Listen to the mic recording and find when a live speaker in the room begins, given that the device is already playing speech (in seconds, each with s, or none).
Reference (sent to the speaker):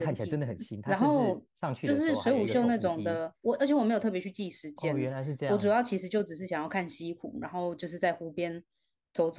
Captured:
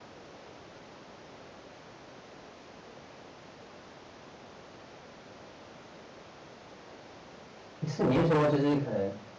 7.9 s